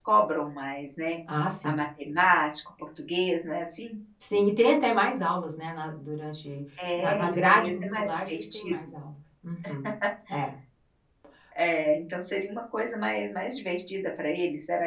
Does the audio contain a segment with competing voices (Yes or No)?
Yes